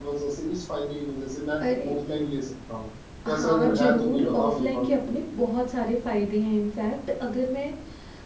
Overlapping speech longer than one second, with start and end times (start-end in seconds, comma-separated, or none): 3.3-4.9